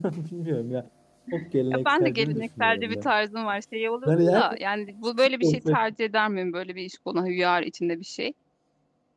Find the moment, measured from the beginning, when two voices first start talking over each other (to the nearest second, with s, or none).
2 s